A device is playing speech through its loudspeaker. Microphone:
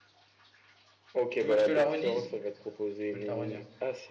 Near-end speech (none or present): present